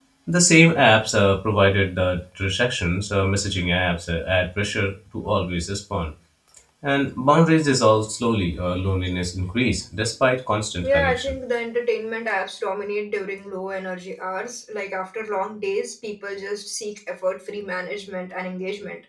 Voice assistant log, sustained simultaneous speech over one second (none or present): none